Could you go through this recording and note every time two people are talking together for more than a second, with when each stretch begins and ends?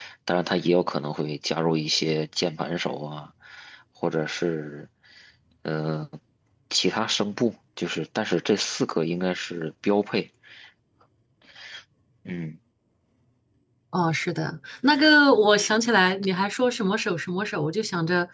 none

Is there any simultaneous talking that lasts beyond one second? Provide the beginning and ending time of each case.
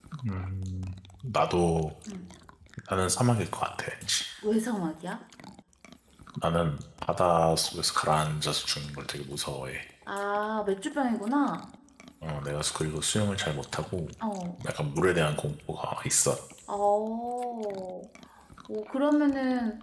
none

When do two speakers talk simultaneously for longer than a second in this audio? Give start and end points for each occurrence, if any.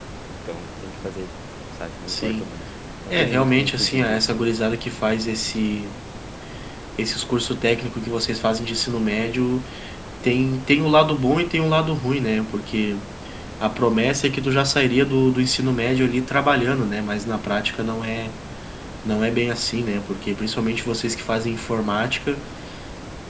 3.1-4.4

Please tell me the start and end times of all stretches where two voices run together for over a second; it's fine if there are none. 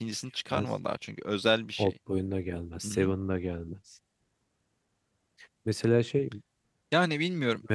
none

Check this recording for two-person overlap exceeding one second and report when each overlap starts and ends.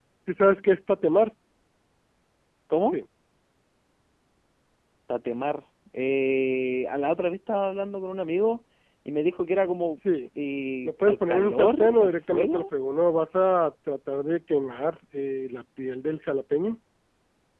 10.8-12.6

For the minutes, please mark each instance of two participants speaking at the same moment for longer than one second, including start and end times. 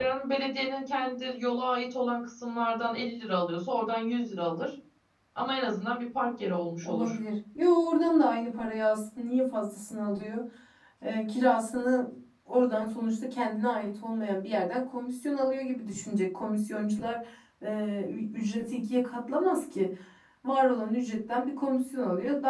none

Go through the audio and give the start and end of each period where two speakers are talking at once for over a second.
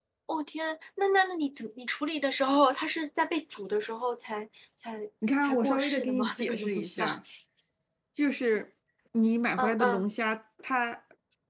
5.4-7.2

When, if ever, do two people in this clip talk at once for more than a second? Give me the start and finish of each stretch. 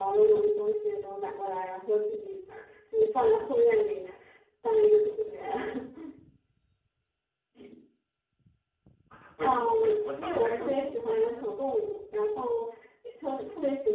9.4-11.4

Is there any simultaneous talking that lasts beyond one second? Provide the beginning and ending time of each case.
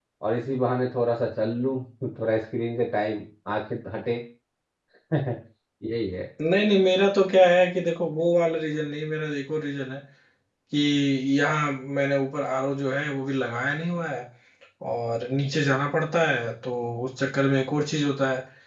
none

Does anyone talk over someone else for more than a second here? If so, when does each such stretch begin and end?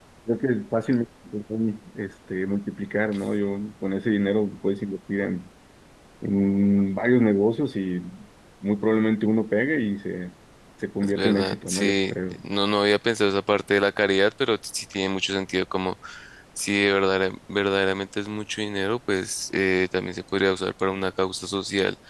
11.0-12.3

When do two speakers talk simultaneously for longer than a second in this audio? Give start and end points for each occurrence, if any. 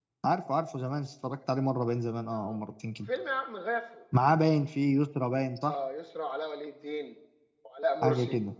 none

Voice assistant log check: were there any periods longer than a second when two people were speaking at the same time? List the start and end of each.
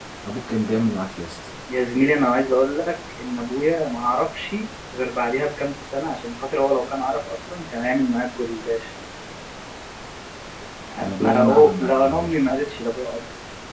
11.0-12.6

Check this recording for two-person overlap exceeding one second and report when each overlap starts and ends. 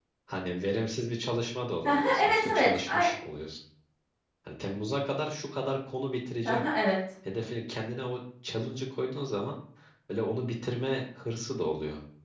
1.9-3.1

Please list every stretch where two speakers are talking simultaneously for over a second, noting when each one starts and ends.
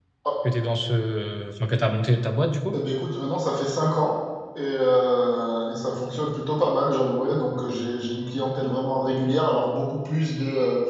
none

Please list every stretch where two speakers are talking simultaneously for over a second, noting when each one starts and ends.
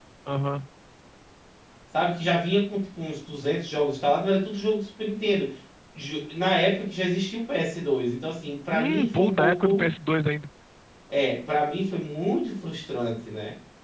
8.7-9.9

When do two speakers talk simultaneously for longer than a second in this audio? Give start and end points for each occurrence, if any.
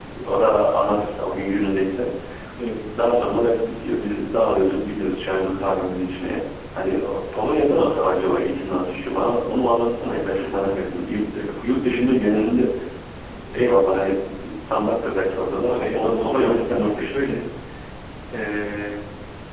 15.7-17.1

